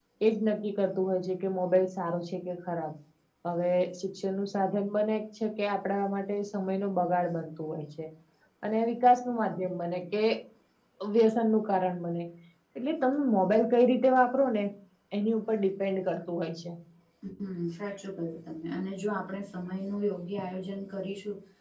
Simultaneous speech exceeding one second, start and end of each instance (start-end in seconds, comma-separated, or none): none